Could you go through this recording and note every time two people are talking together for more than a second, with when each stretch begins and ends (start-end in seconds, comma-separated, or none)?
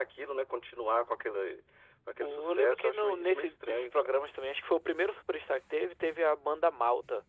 2.2-4.1